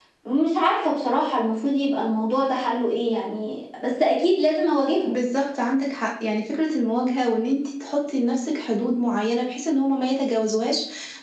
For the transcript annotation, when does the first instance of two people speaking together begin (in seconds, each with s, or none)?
none